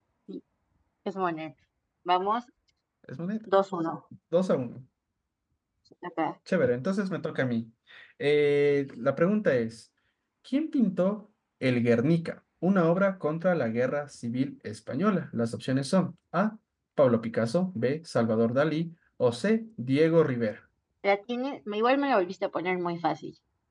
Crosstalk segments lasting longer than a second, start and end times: none

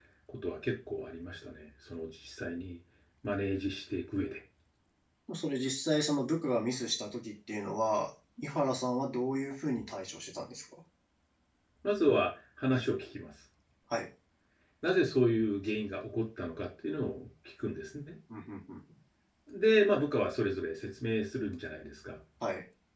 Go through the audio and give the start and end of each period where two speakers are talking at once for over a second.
none

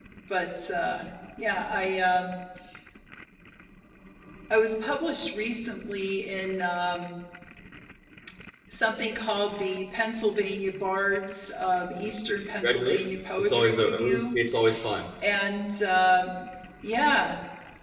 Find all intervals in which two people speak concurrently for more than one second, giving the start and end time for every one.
12.6-14.3

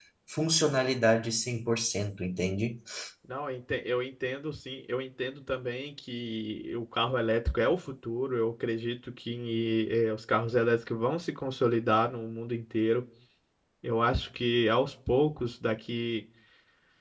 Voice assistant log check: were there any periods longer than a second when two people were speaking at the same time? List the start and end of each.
none

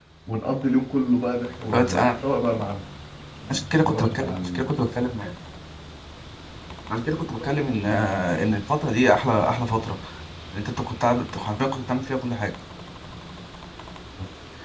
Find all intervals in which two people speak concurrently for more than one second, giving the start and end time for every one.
3.5-4.7

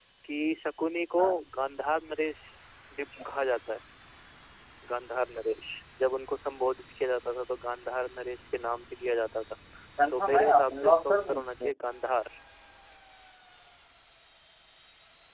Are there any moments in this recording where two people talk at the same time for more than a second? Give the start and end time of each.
10.1-11.7

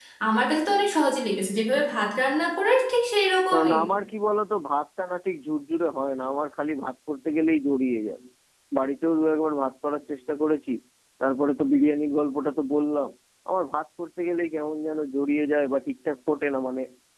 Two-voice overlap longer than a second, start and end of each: none

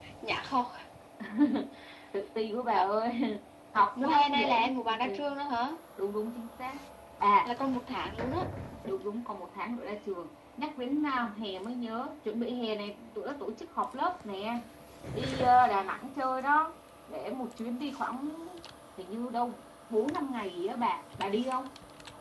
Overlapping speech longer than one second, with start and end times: 3.7-5.2

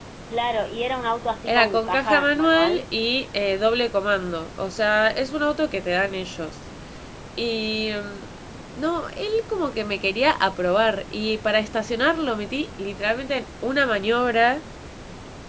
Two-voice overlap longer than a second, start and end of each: 1.4-2.8

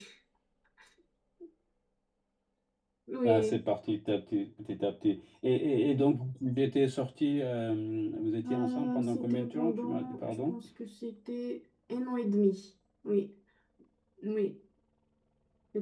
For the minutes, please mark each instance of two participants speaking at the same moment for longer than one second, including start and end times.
8.5-10.5

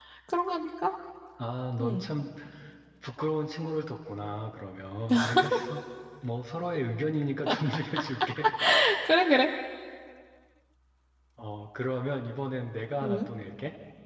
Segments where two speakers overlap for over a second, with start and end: none

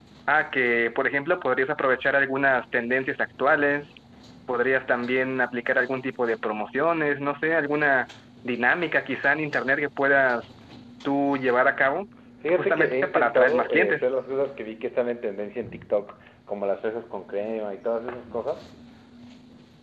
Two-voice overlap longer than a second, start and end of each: 12.5-14.2

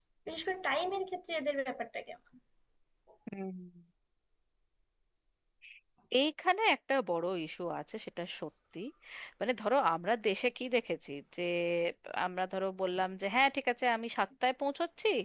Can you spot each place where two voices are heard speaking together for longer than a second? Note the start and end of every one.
none

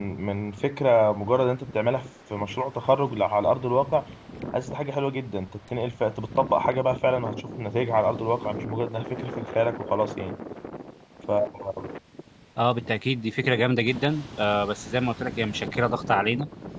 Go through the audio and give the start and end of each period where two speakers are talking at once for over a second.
none

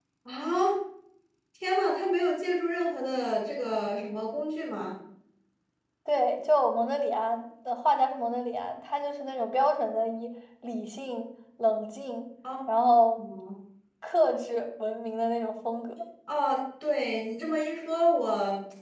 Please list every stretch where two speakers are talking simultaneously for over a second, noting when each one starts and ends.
none

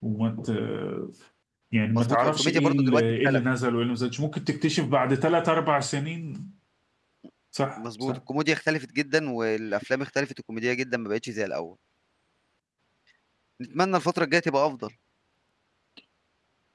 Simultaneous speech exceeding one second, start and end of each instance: 1.9-3.4

